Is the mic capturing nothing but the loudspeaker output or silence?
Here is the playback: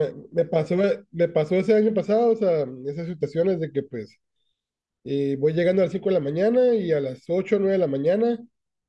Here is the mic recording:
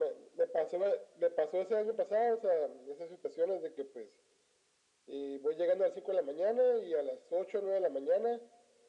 Yes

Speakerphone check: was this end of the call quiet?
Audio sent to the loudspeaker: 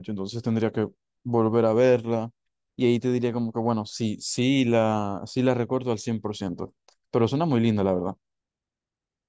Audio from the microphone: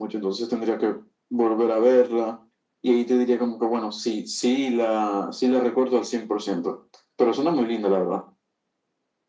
Yes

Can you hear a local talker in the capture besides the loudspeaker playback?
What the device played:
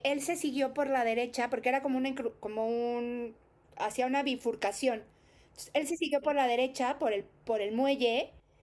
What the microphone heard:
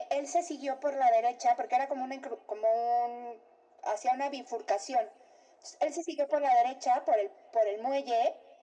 No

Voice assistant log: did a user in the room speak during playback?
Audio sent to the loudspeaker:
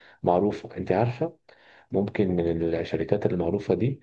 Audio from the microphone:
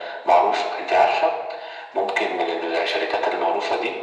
No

